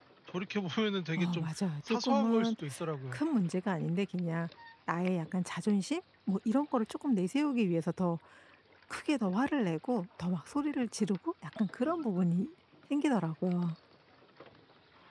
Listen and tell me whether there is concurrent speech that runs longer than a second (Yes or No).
Yes